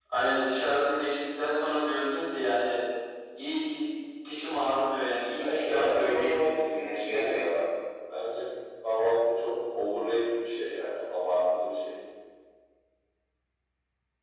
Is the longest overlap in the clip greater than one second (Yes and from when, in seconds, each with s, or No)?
Yes, from 5.4 s